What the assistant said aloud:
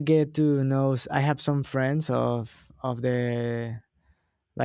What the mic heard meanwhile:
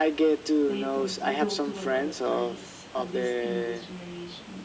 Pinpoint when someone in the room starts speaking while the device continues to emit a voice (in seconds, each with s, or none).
0.7 s